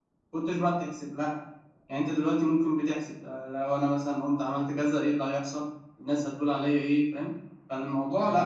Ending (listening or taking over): taking over